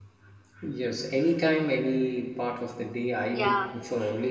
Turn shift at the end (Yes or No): No